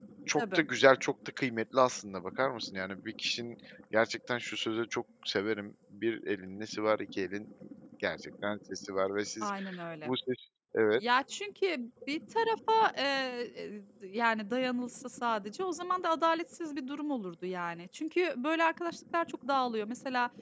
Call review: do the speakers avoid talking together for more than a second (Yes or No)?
Yes